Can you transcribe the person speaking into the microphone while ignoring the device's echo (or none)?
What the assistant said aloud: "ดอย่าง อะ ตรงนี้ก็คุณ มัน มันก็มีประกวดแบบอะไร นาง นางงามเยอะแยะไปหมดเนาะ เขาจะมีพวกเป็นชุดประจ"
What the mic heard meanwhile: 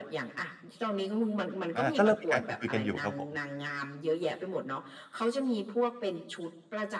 อา ก็เริ่มมีการคุย ๆ กันอยู่ครับผม